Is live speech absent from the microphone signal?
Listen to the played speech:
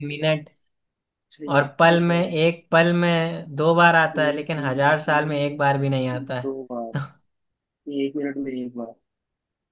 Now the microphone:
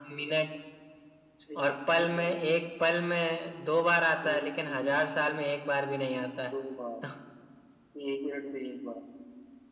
Yes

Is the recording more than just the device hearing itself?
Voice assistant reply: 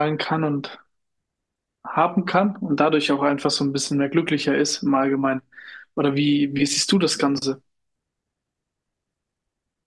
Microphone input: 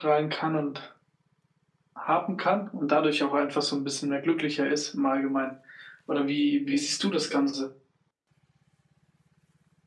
No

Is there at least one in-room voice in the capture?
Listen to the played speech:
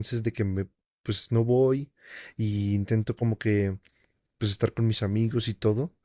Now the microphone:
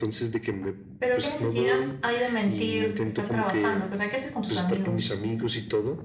Yes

